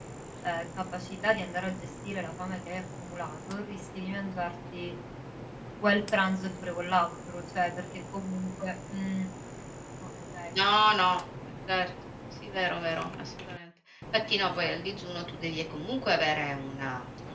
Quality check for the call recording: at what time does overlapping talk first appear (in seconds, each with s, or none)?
none